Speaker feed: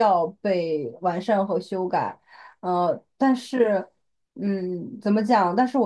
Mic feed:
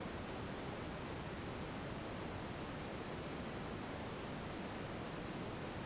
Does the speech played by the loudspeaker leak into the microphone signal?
No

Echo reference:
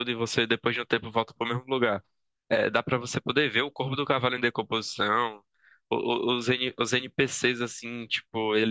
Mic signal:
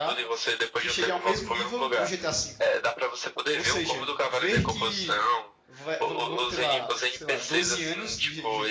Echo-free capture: No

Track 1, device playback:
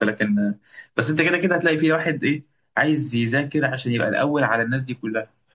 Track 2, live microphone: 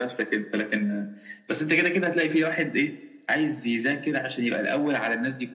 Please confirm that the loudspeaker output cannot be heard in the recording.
No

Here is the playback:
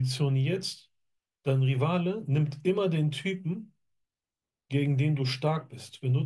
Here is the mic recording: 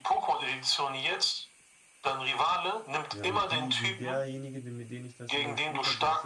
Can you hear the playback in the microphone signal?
Yes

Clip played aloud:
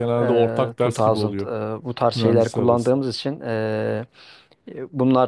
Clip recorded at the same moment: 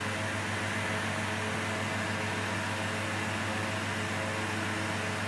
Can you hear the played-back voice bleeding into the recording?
No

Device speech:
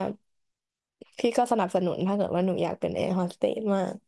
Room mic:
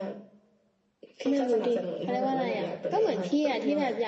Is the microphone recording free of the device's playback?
No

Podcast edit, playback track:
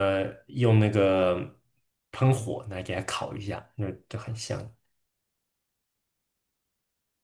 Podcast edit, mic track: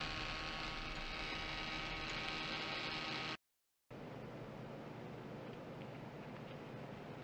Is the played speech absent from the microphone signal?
Yes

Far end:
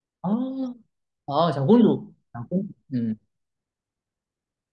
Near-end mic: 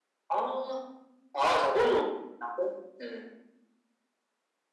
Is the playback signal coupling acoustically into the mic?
Yes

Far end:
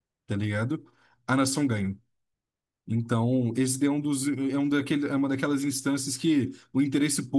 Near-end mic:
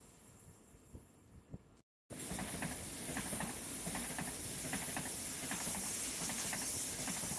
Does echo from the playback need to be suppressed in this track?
No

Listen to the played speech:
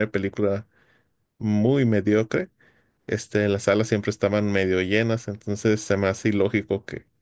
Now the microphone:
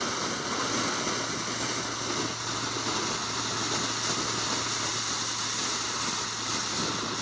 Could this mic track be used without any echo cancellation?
Yes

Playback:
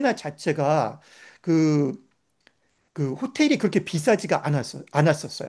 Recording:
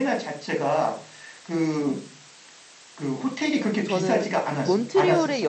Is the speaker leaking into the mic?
Yes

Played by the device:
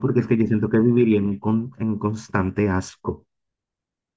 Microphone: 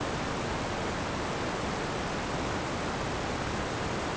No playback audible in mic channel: Yes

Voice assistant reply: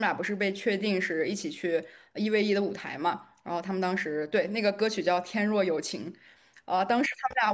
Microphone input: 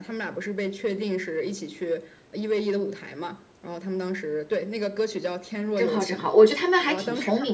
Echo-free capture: No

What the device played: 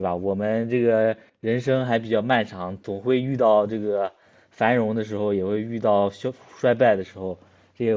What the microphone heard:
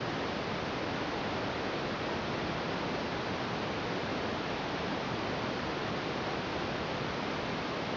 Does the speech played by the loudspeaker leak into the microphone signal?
No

